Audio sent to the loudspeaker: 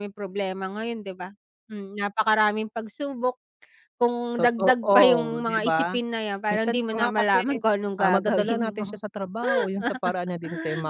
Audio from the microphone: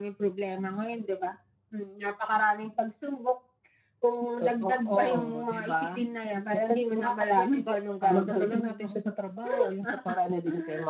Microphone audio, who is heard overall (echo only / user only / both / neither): echo only